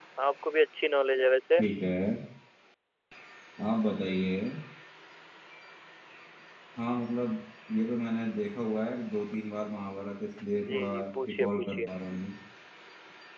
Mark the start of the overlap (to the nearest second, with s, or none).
11 s